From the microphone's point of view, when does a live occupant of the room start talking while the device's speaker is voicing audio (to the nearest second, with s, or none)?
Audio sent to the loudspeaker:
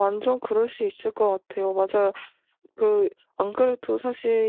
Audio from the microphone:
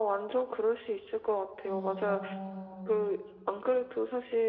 2 s